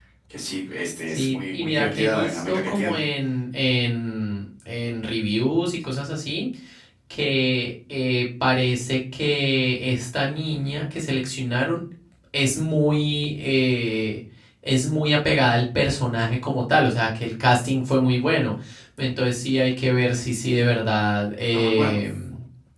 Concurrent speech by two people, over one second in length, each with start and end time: 1.1-3.0

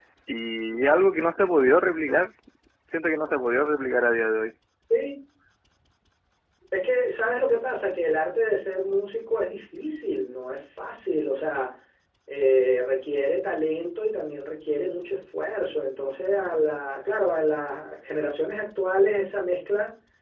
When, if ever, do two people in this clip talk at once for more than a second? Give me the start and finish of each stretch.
none

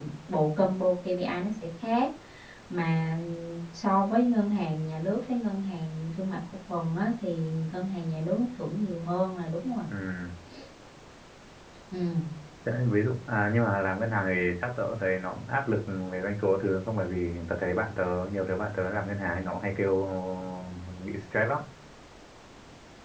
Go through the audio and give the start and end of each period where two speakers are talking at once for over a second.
none

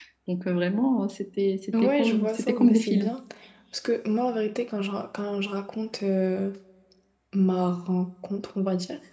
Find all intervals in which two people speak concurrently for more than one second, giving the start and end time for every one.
1.7-3.1

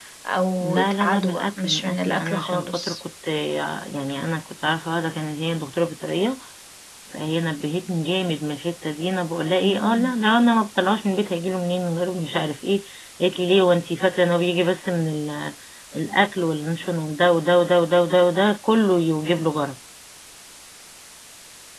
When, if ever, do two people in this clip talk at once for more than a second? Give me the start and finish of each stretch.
0.6-3.0

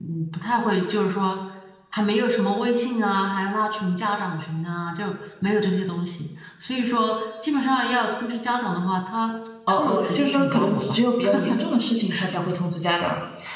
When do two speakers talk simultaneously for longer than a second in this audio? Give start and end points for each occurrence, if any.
9.7-11.0

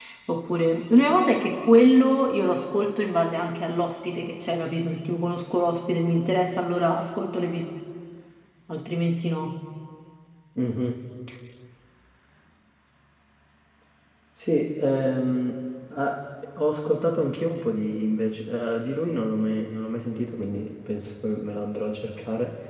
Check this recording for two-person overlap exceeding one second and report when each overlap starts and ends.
none

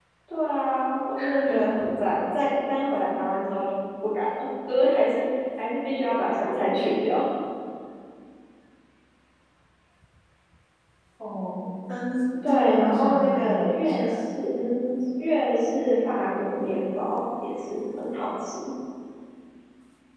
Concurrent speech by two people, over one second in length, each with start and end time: 12.4-14.1

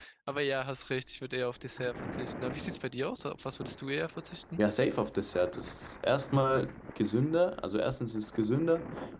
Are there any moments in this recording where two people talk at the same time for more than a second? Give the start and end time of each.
none

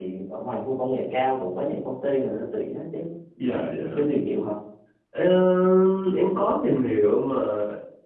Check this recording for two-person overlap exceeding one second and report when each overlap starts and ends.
none

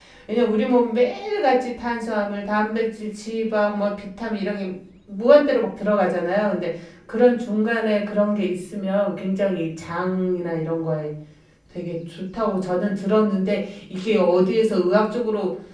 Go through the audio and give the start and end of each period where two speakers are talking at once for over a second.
none

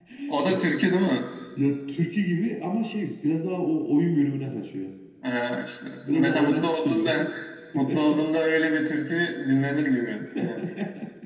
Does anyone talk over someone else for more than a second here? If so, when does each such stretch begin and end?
6.0-7.2

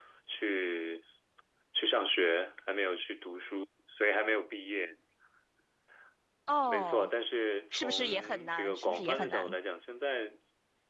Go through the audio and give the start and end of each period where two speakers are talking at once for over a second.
7.7-9.5

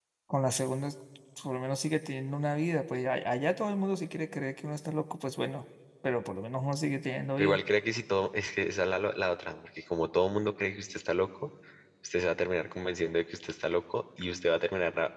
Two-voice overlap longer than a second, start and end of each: none

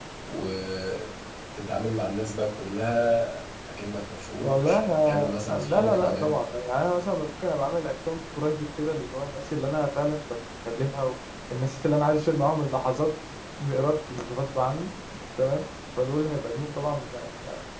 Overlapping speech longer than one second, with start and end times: 4.4-6.4

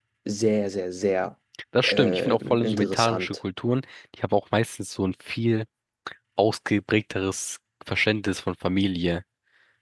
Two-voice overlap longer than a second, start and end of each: 1.9-3.4

